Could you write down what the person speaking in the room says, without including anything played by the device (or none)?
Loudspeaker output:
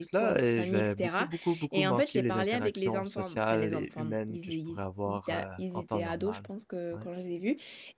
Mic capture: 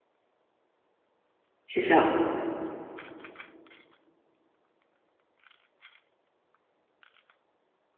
c'est ça.